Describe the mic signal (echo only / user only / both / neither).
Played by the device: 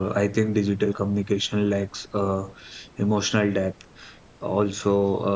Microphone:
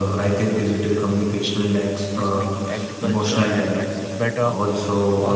both